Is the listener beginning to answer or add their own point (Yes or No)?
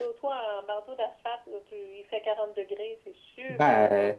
Yes